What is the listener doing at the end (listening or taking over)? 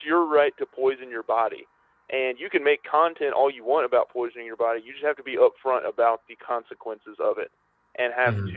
listening